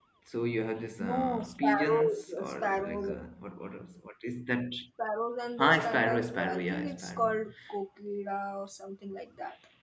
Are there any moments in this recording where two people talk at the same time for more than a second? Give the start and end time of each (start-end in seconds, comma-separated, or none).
1.0-3.1, 5.6-7.3